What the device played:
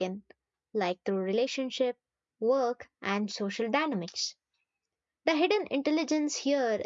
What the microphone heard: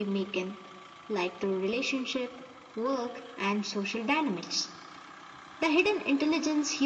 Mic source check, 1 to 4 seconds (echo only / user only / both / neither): echo only